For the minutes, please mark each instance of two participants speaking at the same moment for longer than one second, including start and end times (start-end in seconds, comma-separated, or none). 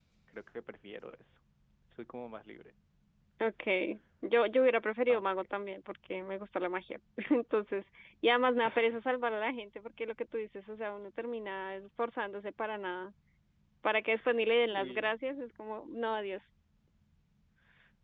none